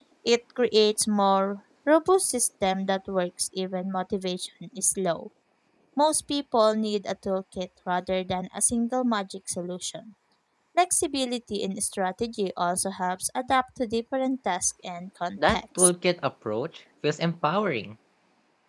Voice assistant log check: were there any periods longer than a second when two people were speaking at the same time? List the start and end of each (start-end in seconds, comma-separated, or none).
none